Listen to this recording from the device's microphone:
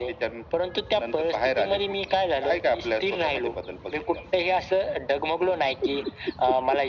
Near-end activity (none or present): none